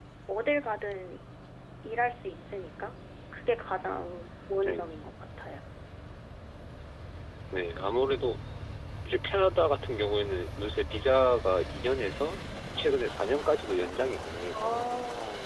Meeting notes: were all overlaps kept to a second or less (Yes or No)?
Yes